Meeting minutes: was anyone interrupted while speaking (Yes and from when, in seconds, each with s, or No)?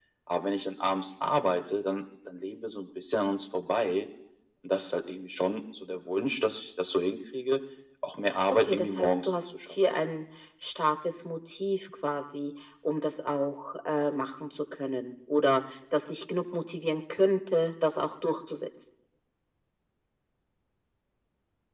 Yes, from 8.6 s